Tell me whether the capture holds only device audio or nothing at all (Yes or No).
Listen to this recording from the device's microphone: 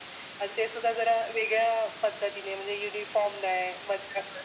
Yes